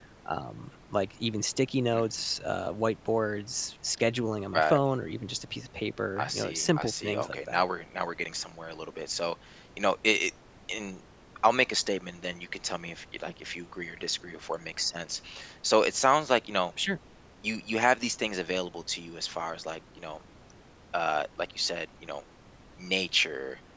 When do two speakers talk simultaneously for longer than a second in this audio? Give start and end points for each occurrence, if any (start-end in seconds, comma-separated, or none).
6.2-7.6